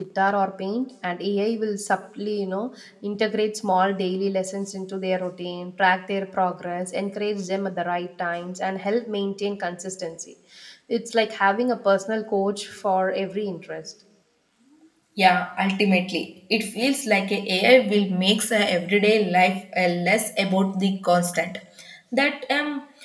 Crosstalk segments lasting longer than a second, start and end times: none

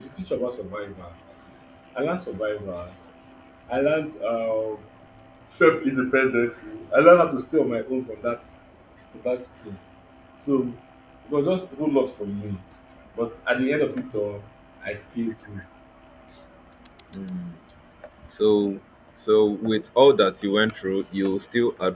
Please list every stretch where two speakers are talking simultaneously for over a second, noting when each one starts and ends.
none

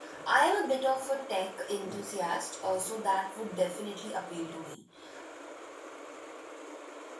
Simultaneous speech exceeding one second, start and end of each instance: none

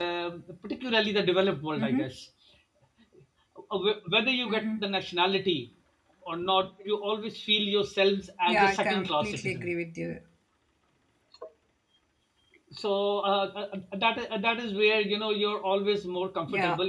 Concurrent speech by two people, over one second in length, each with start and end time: 8.5-9.7

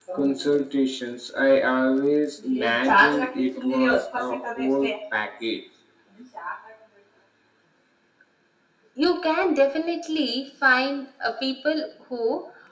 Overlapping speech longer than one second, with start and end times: none

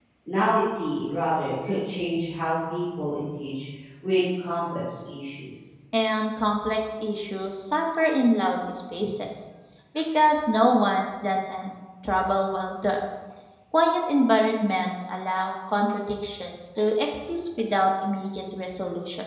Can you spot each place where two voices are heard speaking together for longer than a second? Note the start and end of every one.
none

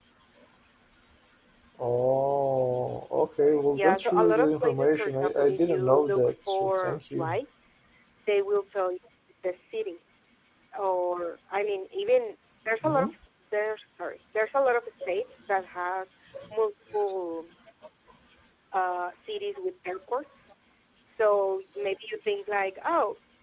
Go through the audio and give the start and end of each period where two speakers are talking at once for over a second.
3.7-7.3

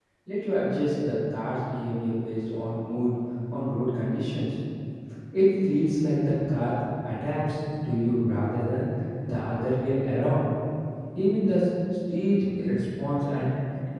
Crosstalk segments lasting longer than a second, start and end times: none

